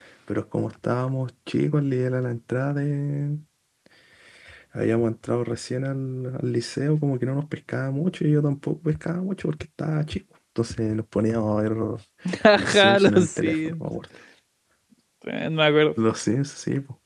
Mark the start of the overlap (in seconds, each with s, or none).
12.6 s